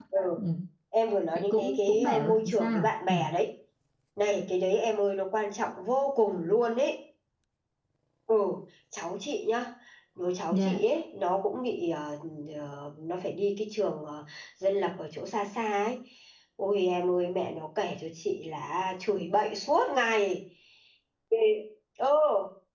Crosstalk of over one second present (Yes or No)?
Yes